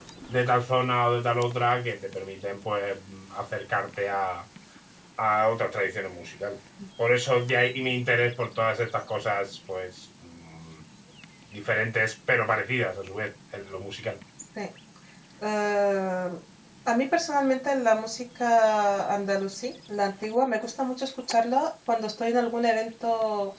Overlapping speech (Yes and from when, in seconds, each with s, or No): No